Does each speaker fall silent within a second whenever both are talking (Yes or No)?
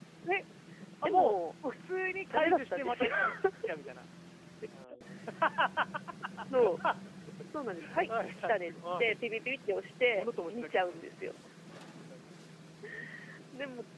No